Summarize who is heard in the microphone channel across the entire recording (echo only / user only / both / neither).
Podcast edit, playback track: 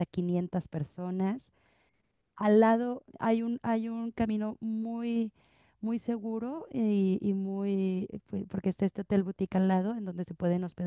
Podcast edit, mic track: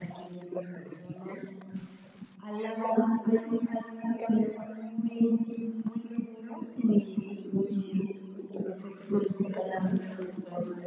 echo only